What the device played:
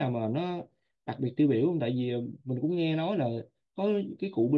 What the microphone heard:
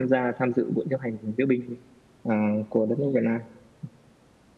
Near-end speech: present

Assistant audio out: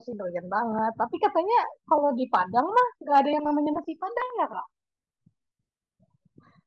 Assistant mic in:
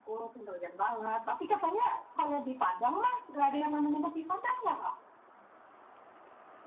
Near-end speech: none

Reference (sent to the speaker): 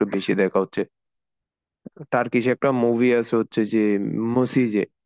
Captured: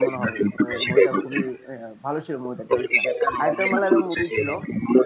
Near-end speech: present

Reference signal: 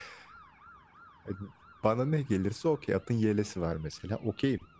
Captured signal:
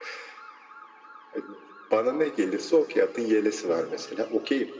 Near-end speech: present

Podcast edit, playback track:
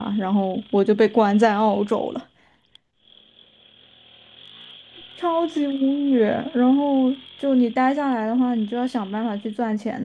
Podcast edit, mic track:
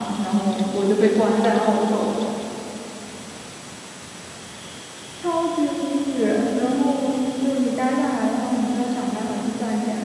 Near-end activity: none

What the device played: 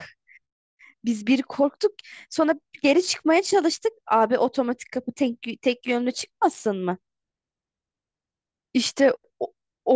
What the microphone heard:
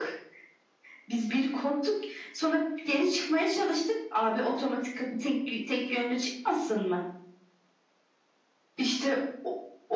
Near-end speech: none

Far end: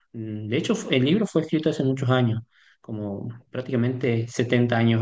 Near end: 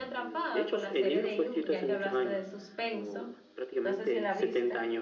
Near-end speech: present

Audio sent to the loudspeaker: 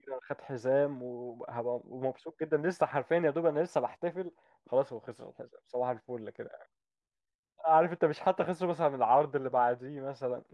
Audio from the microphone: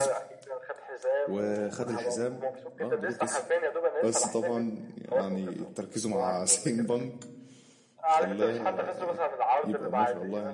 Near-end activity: present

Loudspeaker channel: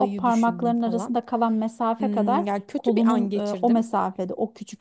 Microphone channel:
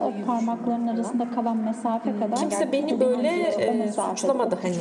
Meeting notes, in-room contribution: present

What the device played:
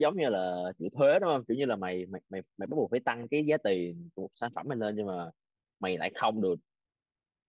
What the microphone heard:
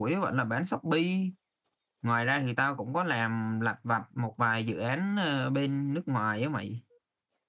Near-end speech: present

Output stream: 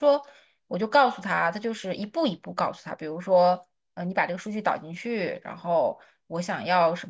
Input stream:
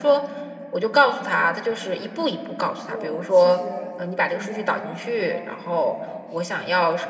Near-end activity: present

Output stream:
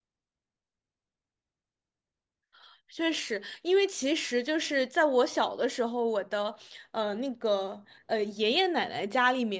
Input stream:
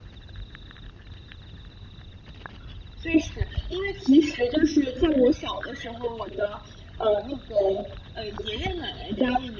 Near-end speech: none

